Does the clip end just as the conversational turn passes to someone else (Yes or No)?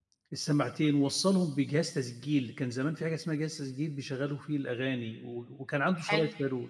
No